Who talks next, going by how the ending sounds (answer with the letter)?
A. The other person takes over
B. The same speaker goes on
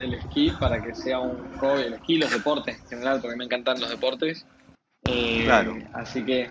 B